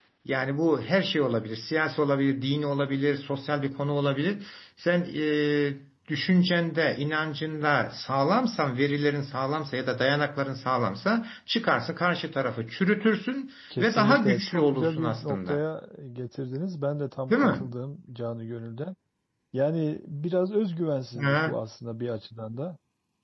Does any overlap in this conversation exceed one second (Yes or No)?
Yes